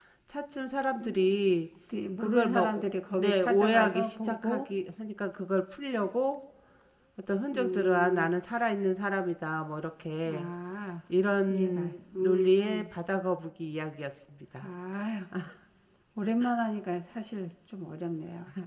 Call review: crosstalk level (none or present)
present